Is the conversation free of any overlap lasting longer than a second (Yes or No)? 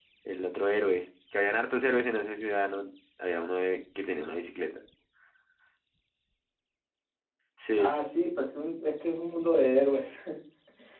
Yes